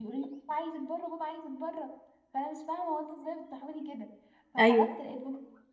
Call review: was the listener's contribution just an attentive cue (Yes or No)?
Yes